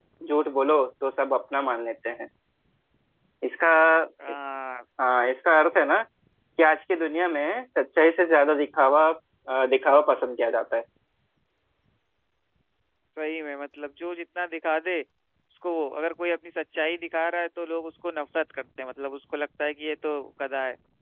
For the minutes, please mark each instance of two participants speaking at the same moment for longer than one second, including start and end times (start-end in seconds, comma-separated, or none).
none